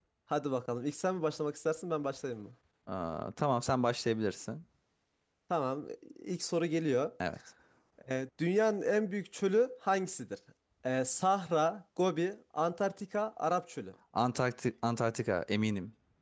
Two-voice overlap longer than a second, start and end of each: none

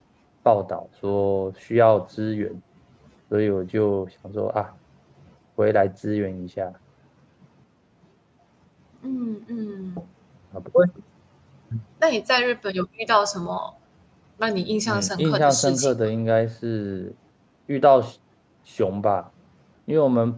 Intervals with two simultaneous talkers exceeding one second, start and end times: 14.9-16.1

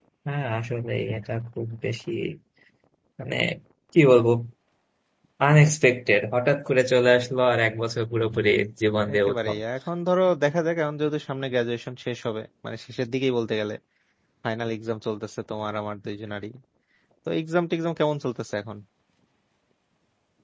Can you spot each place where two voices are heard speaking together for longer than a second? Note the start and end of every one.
none

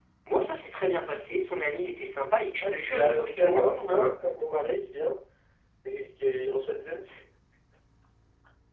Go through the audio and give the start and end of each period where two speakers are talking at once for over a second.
2.6-4.2

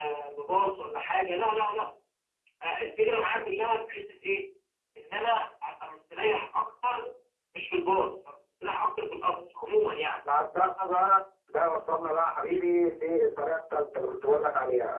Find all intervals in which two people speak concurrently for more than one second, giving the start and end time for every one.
none

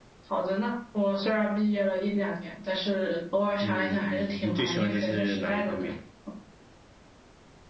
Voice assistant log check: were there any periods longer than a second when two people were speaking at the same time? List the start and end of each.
3.6-5.8

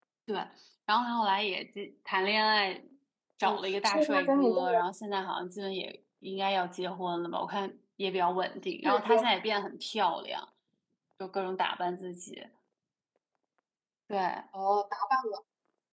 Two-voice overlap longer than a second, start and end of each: 3.4-4.8

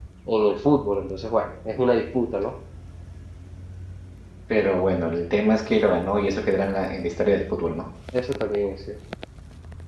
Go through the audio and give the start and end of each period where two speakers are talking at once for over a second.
none

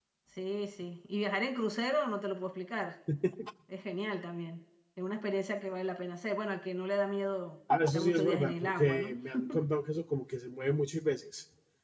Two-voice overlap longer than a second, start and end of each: 7.9-9.1

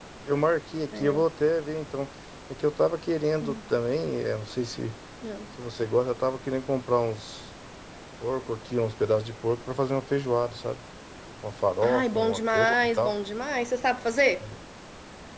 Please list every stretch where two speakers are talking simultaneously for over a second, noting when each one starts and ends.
11.8-13.1

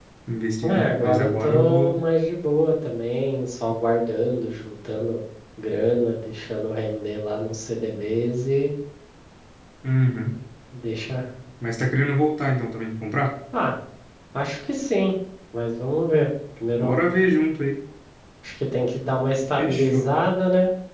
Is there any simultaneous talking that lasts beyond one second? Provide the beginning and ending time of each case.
0.6-2.0

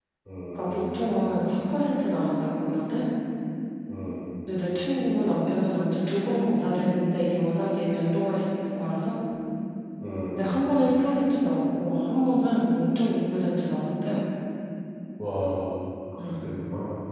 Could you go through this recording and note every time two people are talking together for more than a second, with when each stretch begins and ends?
none

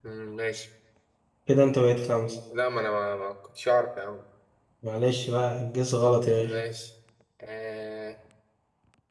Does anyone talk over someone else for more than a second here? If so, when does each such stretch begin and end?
none

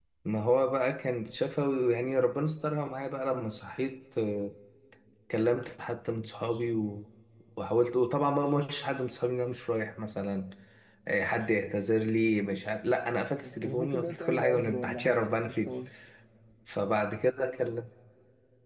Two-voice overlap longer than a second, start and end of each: 13.4-15.7

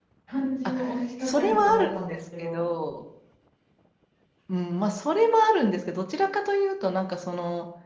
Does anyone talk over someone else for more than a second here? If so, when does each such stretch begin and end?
1.2-2.6

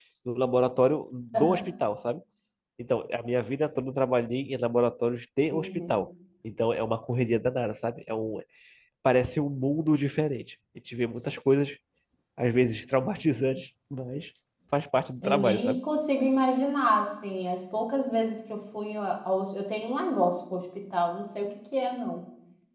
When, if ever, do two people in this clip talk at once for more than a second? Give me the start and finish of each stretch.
none

